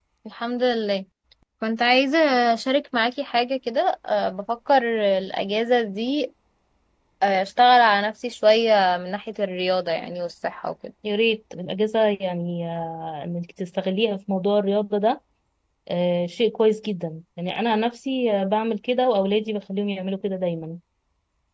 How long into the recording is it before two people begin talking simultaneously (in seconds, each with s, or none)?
none